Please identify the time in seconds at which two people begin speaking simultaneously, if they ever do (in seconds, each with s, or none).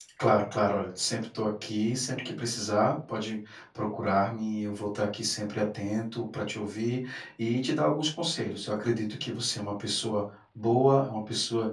none